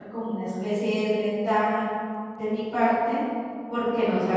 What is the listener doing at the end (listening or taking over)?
listening